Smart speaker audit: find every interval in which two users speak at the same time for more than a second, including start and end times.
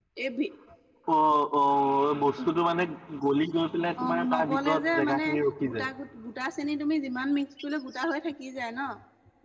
4.0-5.2

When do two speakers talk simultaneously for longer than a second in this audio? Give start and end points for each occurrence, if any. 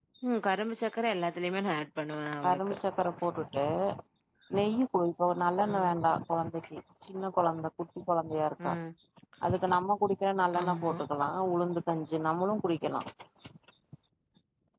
none

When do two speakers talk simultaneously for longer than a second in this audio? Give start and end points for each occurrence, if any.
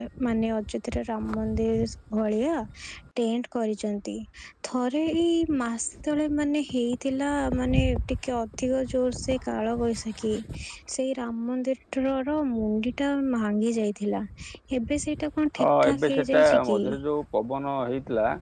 15.6-16.8

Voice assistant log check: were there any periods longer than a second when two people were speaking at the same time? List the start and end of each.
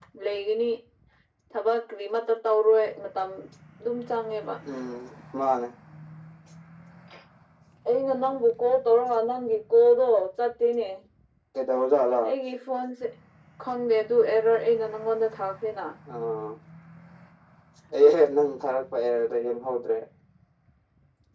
none

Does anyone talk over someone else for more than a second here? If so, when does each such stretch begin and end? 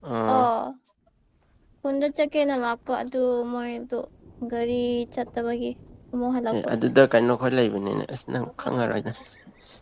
none

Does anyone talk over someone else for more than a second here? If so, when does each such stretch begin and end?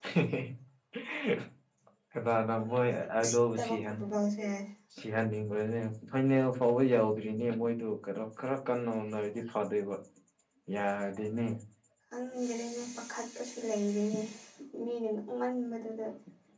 2.6-4.0

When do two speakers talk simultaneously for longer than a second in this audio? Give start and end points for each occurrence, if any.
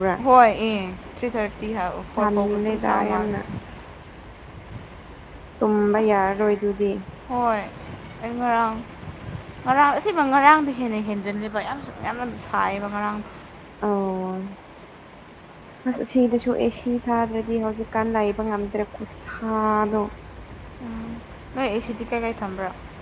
2.2-3.4

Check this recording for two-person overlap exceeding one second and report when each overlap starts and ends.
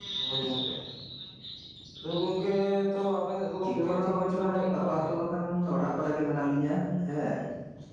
3.6-5.0

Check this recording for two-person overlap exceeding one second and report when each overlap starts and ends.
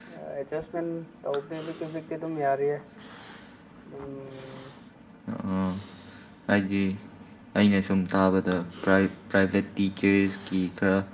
none

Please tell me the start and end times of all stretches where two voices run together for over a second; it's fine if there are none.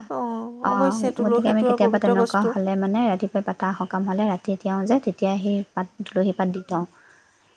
0.7-2.5

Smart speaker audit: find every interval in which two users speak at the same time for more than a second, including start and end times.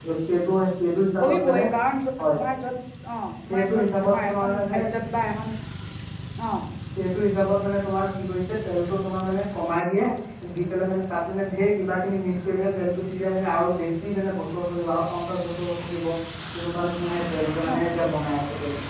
3.5-4.8

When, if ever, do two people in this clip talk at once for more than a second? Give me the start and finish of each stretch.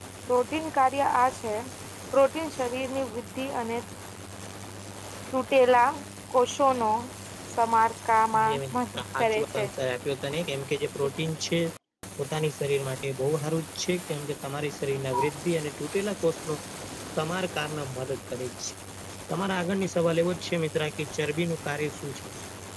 8.4-9.6

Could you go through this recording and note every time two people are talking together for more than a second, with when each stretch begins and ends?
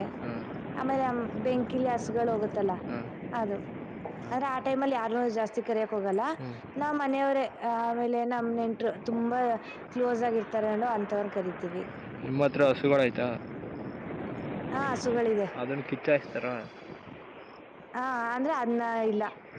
none

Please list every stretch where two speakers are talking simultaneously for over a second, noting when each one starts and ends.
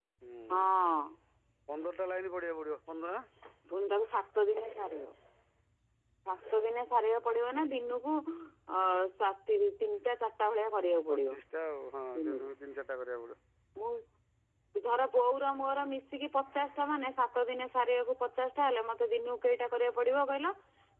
none

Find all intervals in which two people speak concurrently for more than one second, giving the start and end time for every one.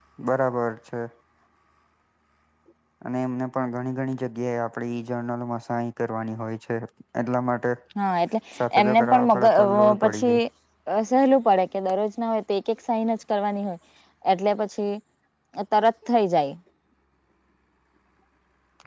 8.8-10.4

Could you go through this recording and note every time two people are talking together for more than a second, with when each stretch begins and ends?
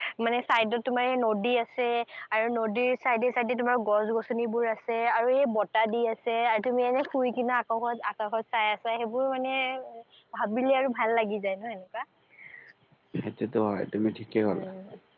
none

